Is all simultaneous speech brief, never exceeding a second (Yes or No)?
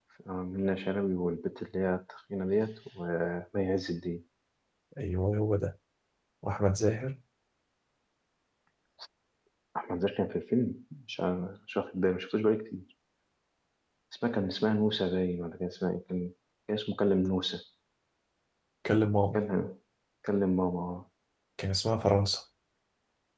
Yes